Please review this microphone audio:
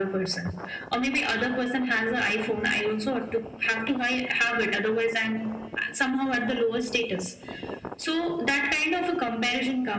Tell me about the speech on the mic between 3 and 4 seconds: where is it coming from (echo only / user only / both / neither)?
echo only